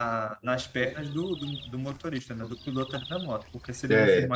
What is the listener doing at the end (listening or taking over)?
listening